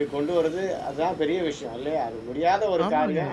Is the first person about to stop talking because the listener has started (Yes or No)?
No